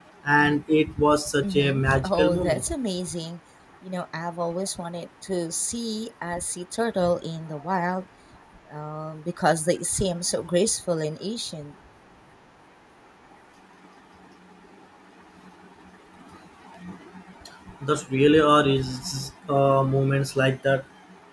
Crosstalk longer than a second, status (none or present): present